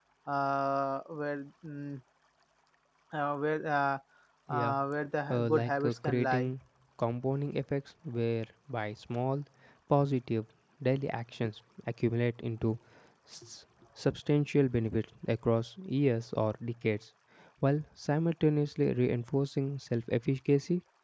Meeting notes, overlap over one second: present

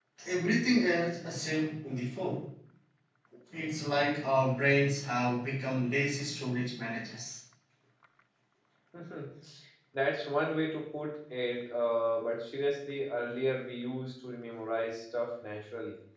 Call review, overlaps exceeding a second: none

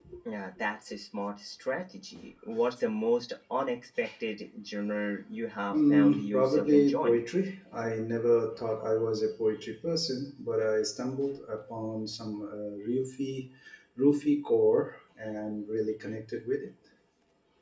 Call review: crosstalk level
present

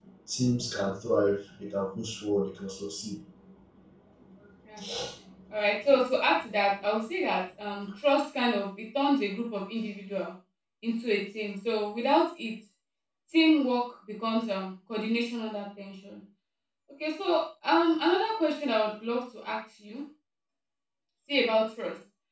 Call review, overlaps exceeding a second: none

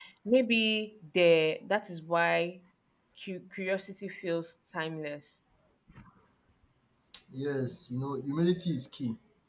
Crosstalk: none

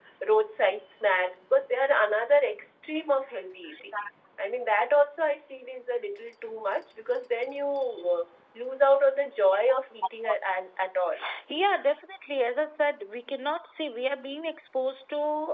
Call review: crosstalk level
none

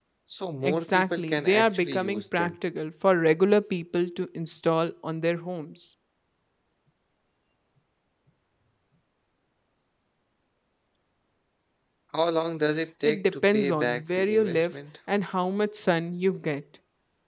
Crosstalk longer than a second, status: present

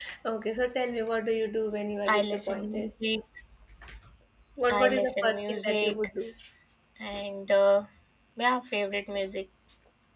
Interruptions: present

